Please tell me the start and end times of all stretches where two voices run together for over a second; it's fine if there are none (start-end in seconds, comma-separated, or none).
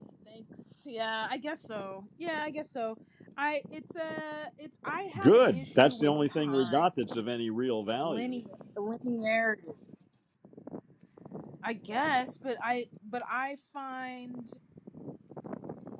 5.2-6.8